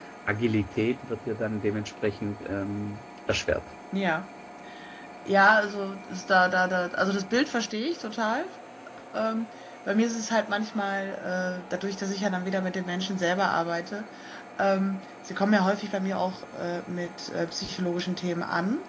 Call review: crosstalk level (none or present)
none